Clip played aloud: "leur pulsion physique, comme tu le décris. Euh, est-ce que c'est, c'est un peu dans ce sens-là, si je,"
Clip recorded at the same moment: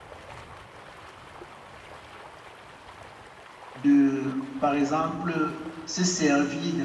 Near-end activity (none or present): present